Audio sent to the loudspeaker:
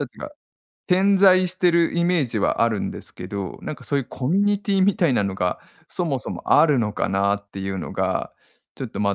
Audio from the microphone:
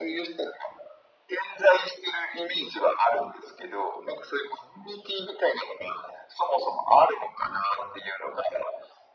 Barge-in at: none

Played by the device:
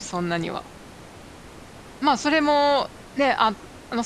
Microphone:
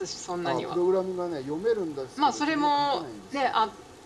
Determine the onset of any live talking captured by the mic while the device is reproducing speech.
0 s

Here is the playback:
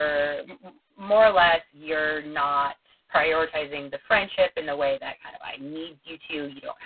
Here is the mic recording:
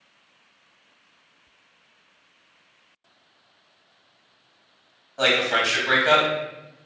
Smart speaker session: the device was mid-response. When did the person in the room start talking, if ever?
5 s

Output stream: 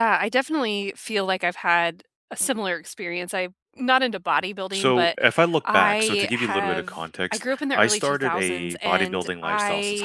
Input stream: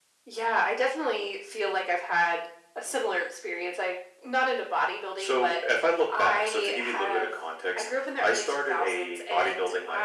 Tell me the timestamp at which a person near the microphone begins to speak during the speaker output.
none

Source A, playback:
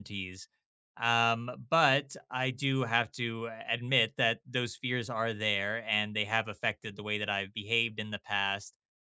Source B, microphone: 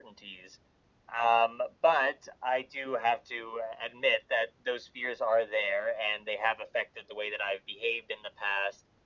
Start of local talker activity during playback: none

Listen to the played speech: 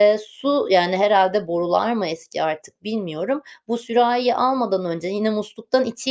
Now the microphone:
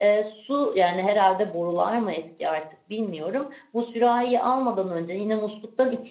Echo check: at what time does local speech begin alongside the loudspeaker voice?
none

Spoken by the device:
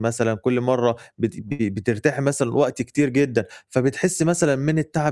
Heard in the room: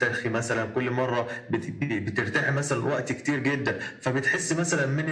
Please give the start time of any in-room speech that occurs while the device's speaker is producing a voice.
none

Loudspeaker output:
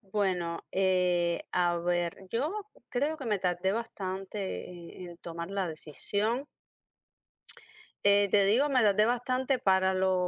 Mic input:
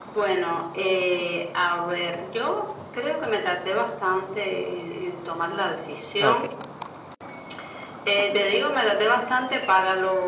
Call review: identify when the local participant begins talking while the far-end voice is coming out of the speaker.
6 s

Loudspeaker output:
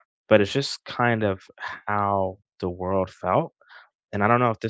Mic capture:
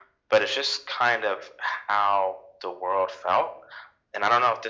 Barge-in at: none

